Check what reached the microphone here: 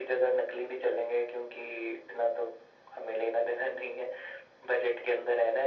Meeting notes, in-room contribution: none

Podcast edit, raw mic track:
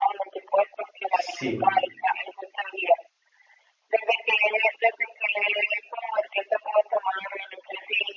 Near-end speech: present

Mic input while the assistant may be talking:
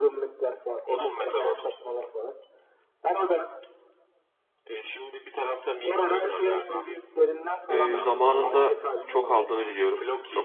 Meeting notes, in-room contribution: present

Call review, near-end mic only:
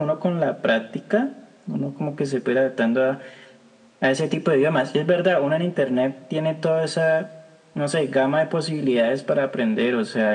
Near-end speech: none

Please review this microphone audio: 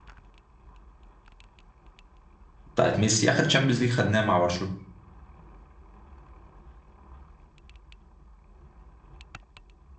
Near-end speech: present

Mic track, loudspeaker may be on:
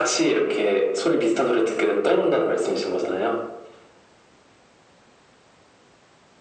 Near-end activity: none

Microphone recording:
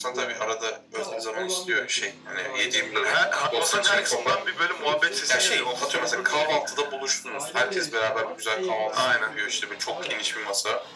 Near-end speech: present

